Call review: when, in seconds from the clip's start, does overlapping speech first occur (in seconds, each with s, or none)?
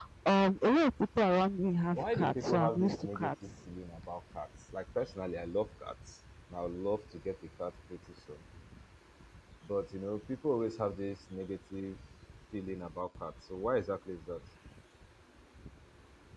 1.9 s